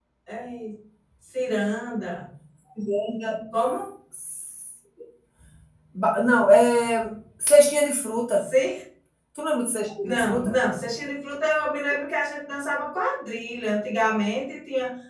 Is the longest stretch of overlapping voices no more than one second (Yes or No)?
Yes